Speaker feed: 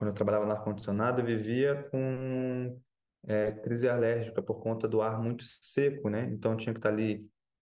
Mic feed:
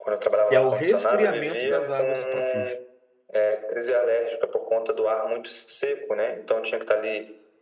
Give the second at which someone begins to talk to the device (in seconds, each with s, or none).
0.5 s